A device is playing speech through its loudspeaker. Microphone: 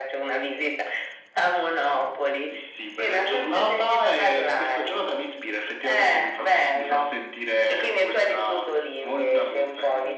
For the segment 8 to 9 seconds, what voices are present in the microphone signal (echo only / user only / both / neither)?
echo only